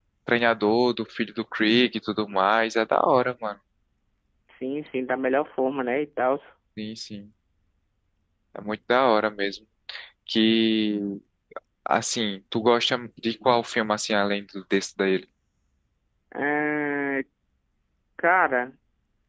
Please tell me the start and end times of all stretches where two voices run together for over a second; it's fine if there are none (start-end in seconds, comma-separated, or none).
none